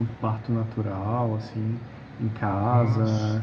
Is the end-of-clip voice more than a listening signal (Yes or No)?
No